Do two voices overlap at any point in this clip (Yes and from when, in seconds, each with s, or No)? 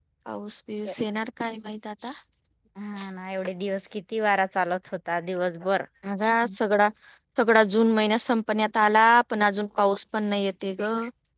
No